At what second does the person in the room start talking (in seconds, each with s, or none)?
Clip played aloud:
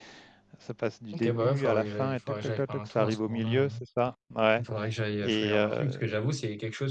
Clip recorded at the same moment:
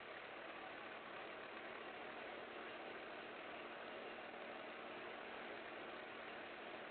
none